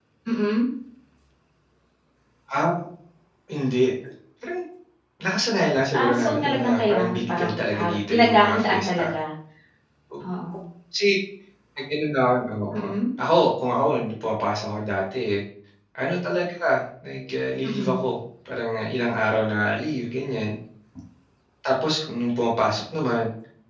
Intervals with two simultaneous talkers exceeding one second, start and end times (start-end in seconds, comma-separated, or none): 6.0-9.1